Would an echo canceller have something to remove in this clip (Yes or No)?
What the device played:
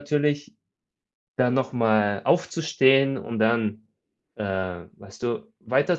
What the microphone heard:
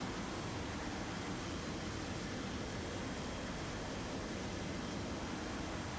No